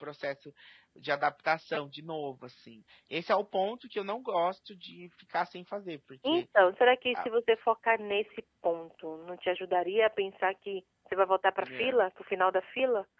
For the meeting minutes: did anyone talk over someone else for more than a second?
No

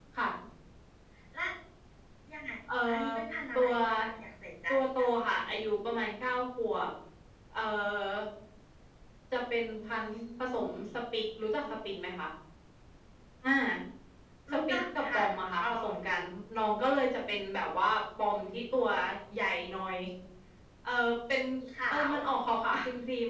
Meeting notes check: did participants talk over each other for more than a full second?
Yes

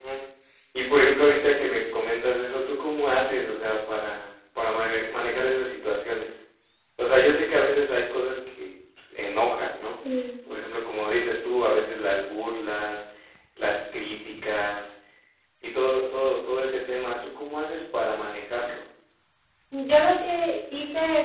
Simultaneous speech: No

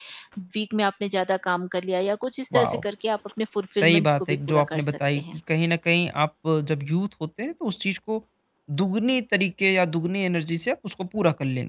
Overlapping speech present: Yes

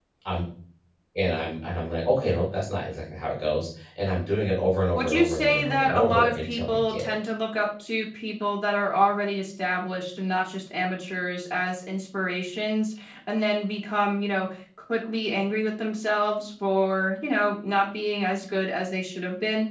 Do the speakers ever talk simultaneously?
Yes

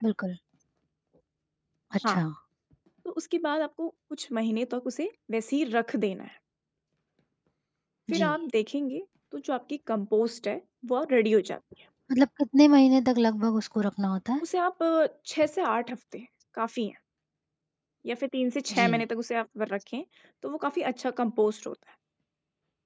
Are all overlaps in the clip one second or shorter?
Yes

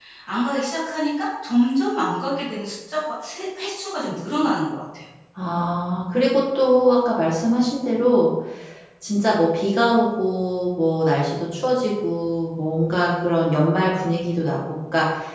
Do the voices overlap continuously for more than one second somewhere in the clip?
No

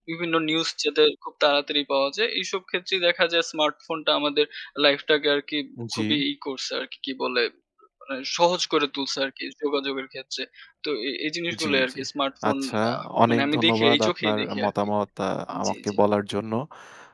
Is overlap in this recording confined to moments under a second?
No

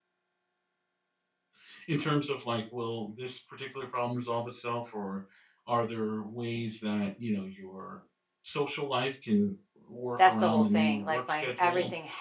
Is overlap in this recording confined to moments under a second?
No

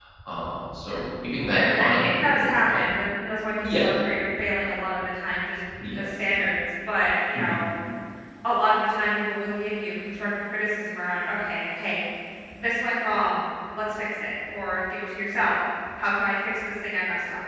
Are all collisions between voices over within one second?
No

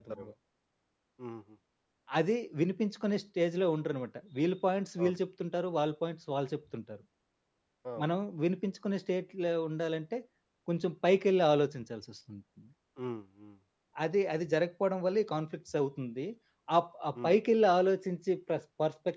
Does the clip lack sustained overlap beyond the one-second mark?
Yes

